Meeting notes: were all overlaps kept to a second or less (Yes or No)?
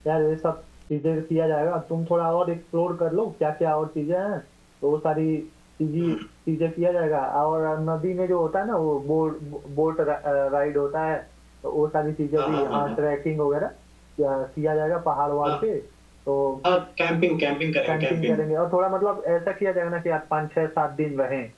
Yes